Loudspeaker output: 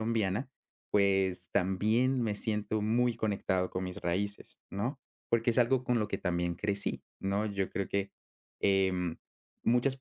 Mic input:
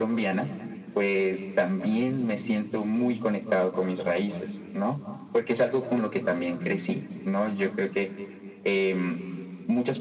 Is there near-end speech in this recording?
No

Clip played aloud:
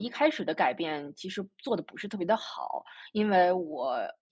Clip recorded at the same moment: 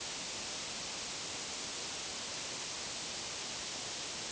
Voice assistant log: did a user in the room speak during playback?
No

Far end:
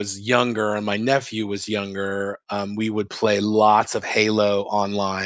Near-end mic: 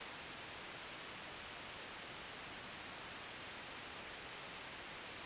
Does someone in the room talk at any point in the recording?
No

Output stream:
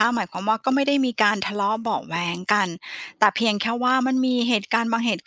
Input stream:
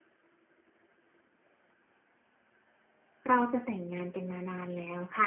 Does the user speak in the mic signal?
Yes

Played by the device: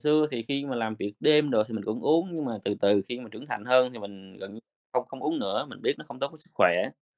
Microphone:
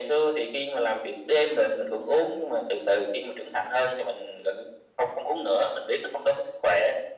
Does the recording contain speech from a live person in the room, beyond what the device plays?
No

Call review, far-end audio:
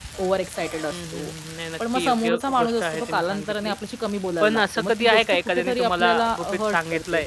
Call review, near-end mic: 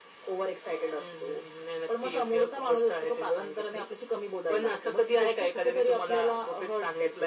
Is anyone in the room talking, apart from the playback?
No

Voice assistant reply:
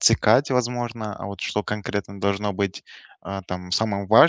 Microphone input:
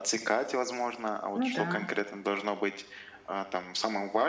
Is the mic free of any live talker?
No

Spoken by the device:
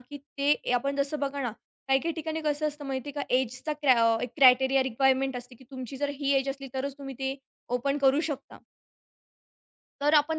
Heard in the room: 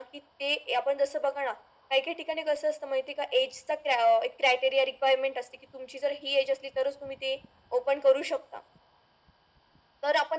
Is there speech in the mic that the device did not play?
No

